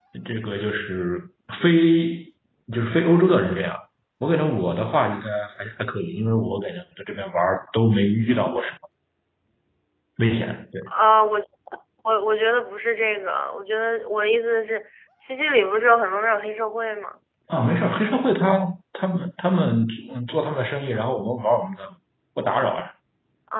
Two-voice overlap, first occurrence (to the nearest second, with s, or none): none